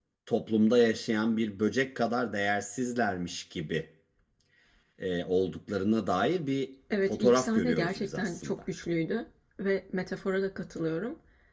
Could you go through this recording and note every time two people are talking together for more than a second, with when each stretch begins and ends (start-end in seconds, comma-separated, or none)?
7.1-8.6